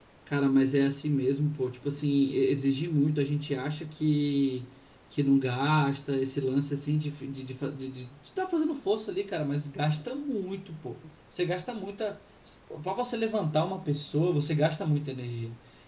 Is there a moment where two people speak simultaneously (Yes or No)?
No